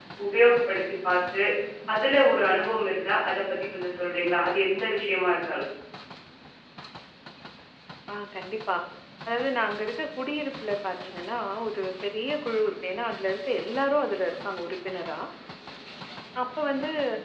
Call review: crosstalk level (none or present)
none